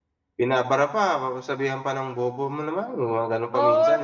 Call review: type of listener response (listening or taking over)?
taking over